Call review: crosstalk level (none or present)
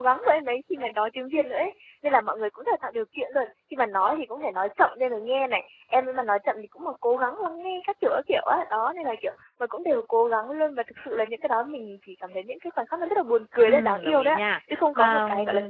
present